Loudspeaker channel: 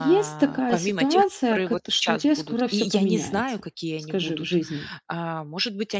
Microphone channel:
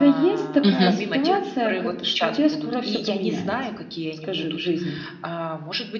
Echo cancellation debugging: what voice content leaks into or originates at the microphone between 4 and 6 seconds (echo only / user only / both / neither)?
echo only